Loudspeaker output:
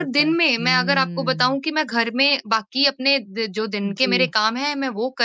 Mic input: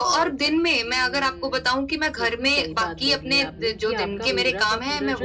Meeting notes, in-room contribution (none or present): present